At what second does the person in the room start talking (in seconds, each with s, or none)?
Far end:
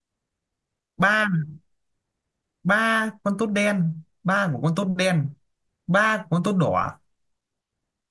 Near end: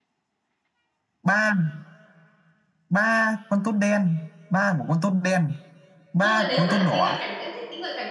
6.2 s